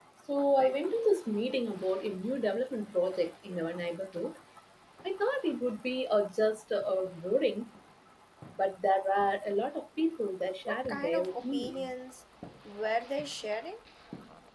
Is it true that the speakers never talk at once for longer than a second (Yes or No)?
No